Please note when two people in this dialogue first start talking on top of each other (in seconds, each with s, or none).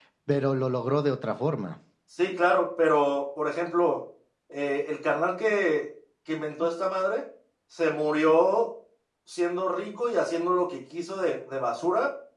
none